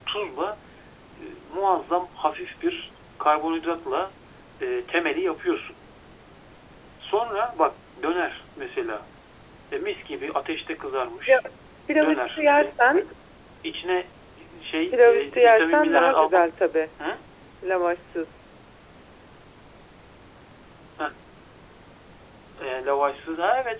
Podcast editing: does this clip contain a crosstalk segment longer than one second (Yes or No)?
Yes